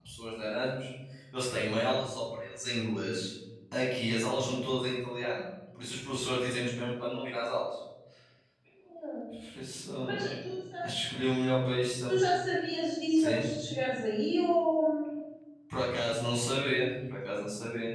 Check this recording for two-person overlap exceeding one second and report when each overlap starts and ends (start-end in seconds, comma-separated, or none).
none